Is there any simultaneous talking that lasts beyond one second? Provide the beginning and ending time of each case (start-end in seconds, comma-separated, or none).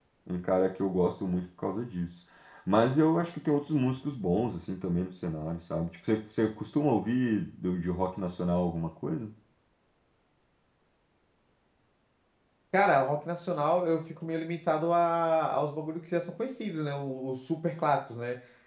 none